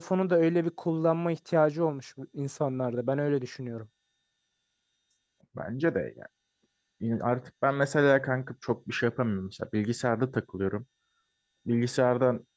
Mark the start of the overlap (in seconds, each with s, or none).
none